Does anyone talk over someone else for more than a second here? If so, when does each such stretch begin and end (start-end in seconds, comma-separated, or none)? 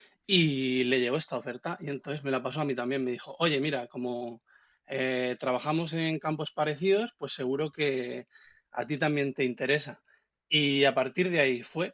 none